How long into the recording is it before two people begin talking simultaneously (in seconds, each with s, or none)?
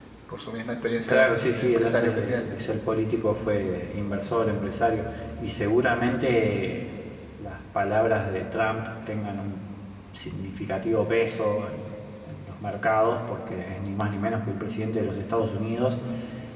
1.1 s